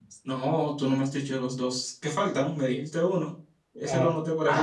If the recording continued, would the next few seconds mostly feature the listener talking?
Yes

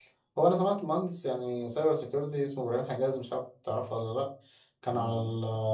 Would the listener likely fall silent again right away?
Yes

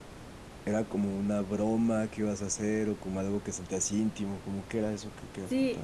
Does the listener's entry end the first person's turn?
Yes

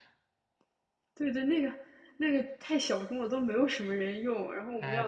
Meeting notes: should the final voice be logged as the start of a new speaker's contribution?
Yes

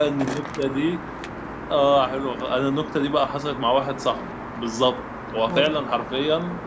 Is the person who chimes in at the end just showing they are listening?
Yes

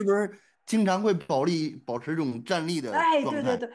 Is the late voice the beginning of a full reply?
Yes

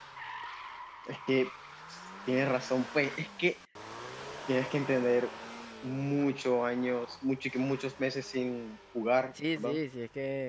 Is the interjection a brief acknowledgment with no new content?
No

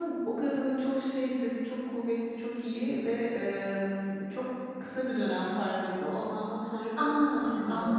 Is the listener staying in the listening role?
No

